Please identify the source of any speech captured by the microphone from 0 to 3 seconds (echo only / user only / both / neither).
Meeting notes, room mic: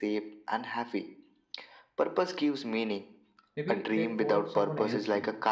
echo only